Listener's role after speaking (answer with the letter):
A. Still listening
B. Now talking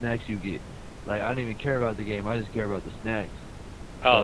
B